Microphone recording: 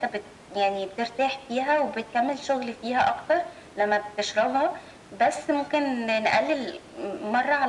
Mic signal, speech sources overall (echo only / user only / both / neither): echo only